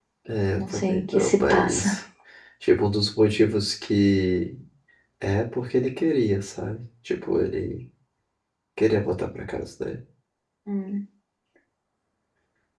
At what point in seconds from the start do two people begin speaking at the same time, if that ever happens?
0.5 s

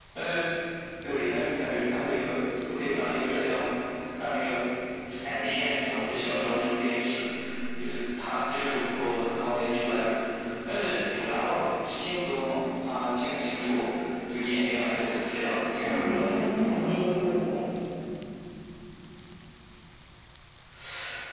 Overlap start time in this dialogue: 15.8 s

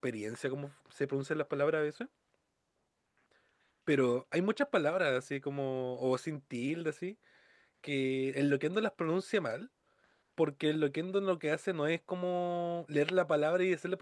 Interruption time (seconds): none

